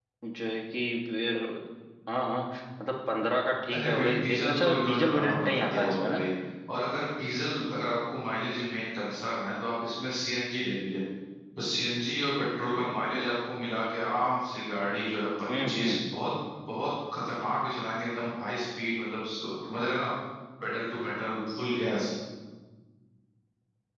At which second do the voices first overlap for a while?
3.7 s

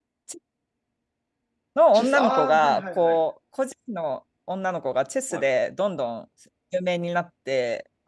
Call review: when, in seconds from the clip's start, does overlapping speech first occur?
1.9 s

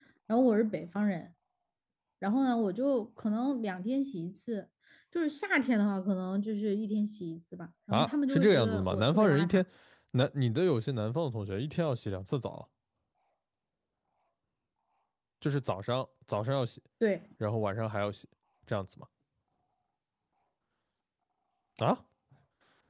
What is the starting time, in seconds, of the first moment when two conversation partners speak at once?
7.9 s

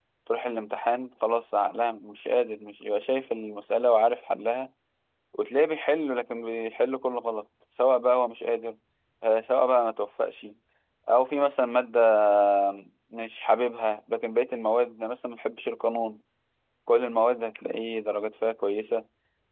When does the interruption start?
none

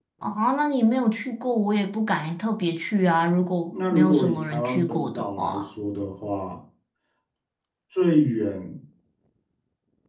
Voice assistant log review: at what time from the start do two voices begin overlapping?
3.7 s

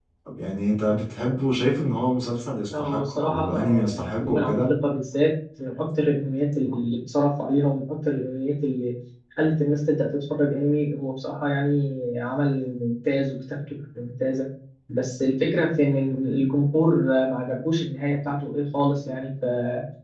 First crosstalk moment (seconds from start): 2.7 s

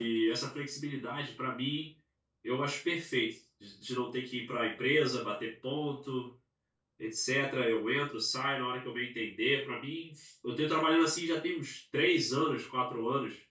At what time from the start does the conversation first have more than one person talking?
none

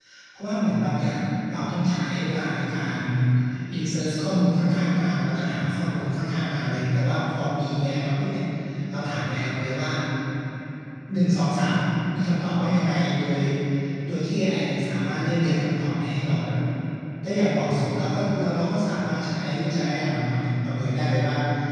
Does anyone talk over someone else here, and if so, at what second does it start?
none

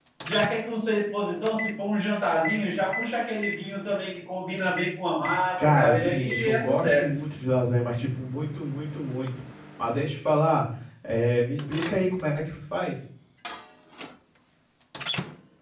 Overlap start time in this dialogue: 5.6 s

